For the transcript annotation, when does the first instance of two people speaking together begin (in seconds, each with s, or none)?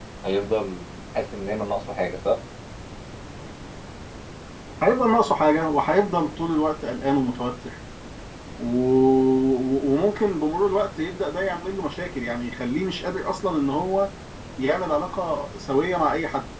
none